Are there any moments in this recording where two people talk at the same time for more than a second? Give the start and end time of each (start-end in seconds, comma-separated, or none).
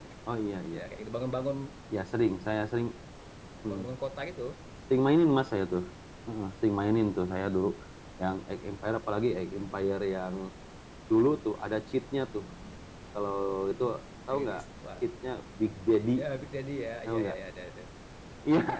none